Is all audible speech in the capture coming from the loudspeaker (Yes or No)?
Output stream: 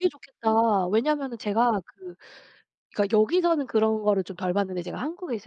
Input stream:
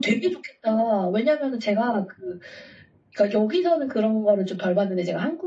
Yes